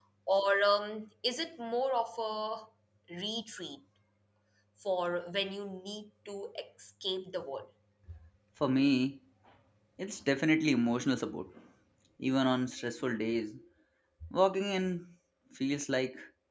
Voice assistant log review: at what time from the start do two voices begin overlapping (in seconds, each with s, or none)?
none